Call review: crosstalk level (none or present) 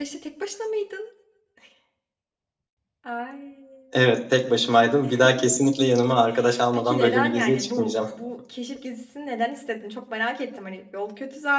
present